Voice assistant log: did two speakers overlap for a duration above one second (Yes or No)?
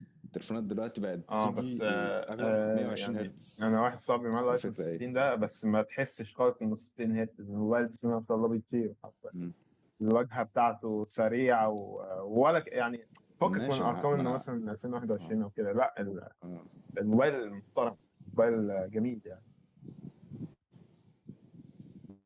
Yes